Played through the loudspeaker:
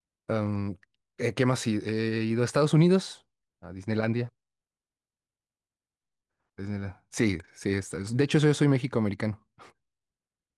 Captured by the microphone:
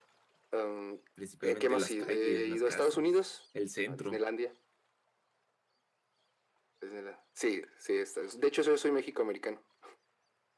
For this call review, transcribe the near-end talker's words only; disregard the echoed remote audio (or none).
Principalmente las calles, las casas, el centro,